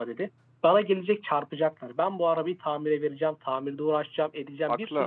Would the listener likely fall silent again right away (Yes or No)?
Yes